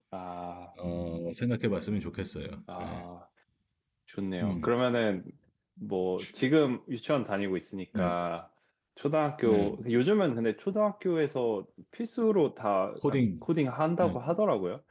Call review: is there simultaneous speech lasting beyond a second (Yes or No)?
No